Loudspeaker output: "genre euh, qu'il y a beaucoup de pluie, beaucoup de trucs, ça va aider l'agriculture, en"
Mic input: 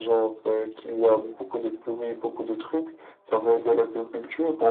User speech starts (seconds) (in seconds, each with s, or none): none